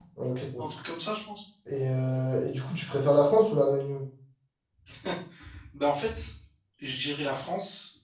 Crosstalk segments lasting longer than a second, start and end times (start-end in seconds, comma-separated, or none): none